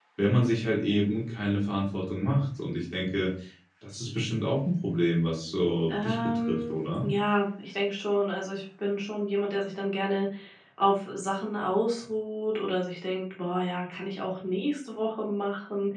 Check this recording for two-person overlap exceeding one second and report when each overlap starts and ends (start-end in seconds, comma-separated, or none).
5.9-7.1